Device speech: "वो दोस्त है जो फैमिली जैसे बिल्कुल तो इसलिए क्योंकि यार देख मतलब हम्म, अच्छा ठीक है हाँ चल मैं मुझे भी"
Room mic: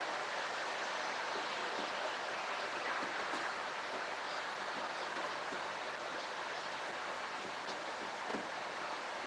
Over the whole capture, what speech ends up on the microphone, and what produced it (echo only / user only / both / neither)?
neither